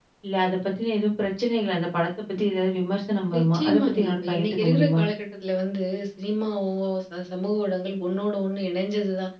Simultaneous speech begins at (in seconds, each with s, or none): 3.3 s